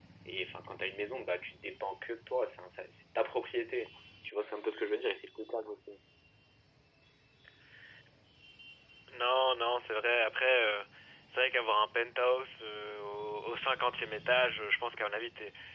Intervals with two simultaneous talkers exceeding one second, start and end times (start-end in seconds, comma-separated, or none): none